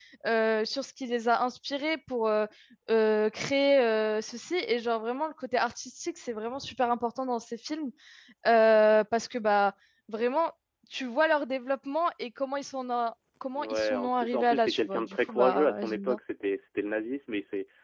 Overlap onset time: 13.6 s

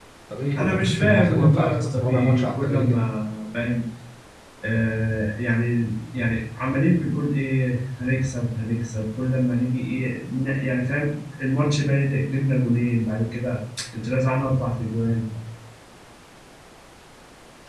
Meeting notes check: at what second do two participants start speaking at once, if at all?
0.6 s

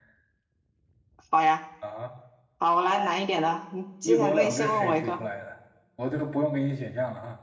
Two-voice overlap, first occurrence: 4.0 s

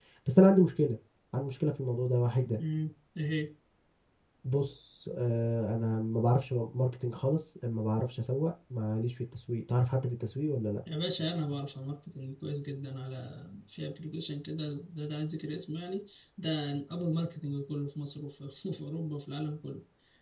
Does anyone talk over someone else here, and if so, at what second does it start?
none

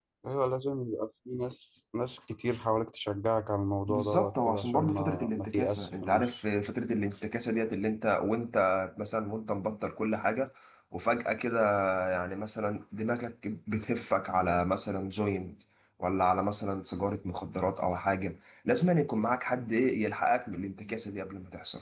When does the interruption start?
3.9 s

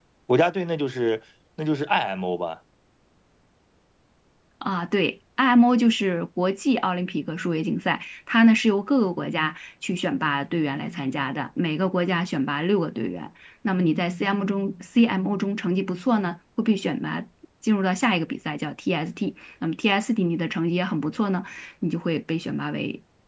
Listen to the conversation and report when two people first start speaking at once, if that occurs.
none

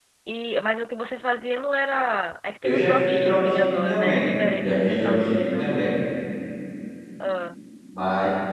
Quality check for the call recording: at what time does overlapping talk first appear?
2.6 s

